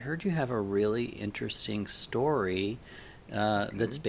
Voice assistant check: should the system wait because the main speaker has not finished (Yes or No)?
Yes